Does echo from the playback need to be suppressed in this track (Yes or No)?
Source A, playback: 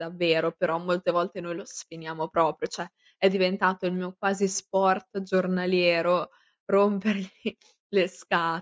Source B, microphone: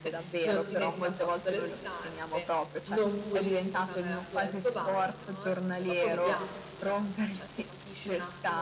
Yes